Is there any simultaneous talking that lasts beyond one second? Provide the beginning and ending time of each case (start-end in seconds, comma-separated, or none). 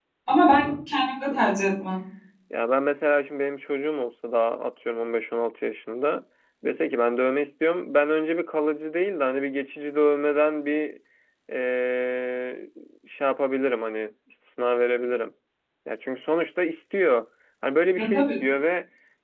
none